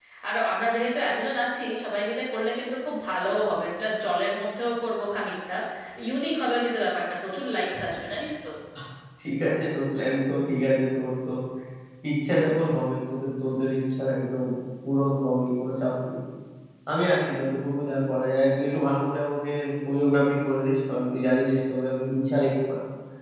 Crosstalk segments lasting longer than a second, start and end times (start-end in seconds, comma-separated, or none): none